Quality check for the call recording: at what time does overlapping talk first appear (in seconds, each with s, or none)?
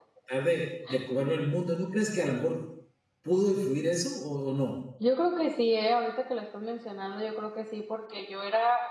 none